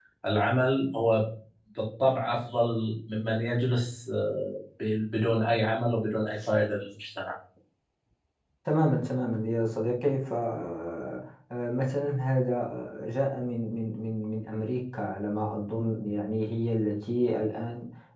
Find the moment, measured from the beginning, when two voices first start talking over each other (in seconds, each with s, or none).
none